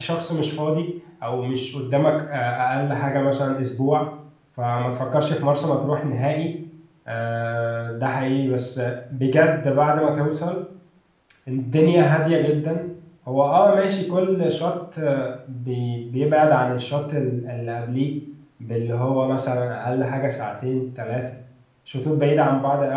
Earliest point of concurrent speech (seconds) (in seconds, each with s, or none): none